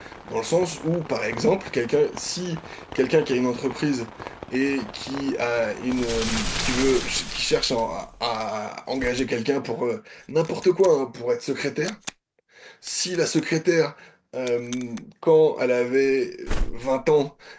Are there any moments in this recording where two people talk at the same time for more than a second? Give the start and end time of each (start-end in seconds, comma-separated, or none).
none